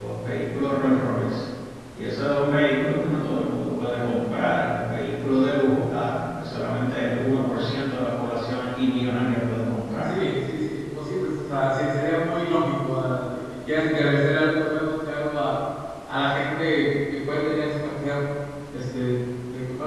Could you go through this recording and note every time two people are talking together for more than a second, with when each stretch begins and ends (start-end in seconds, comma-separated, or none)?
none